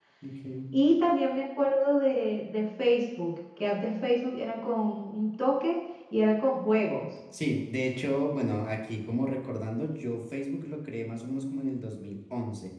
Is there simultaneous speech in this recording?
No

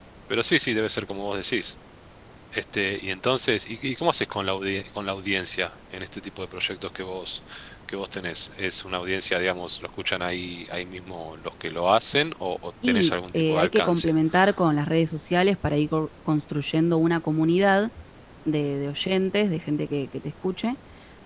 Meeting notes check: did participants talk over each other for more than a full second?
Yes, from 12.8 s

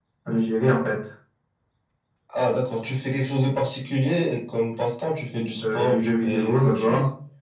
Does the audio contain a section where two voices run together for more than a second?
Yes, from 5.6 s

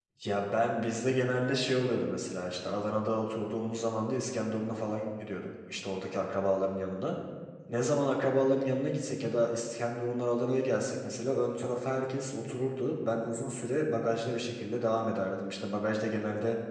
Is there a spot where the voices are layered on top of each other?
No

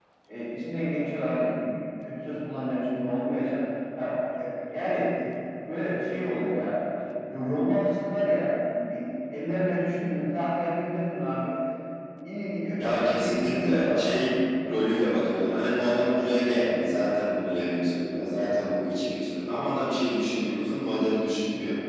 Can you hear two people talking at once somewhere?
Yes, from 13.1 s

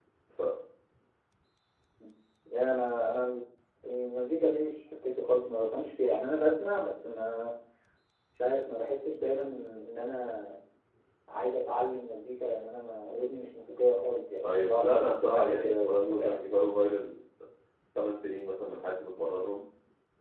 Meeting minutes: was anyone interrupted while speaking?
Yes, from 14.4 s

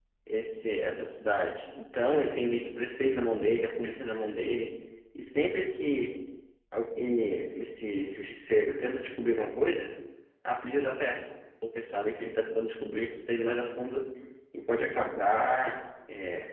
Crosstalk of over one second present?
No

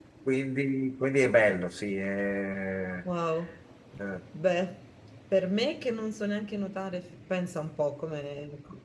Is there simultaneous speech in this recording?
No

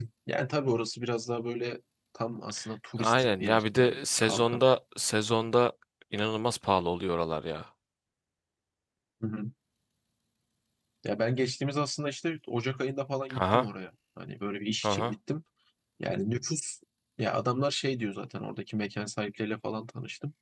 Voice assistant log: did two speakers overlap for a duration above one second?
Yes, from 3.0 s

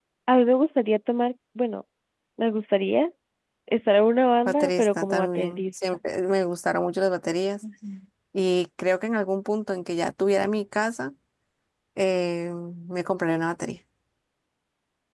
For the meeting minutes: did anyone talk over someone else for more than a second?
Yes, from 4.5 s

